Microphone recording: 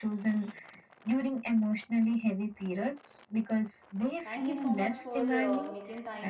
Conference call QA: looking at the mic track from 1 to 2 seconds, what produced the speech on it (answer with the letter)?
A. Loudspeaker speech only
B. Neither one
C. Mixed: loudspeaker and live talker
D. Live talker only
A